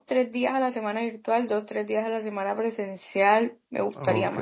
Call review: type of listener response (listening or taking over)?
taking over